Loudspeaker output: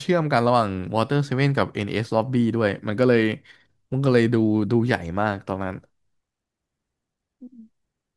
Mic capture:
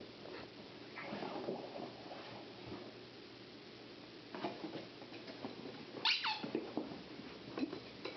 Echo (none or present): none